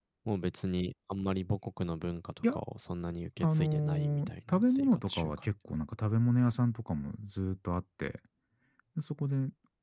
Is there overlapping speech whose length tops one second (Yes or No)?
Yes